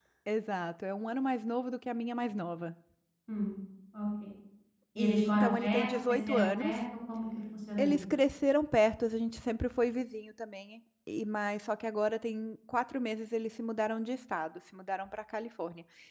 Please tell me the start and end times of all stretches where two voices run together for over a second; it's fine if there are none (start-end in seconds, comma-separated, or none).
5.0-6.8